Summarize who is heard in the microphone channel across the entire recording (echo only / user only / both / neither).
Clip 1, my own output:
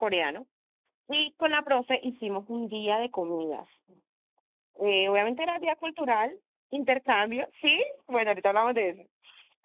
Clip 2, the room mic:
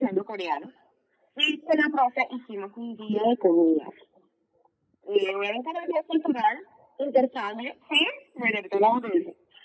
echo only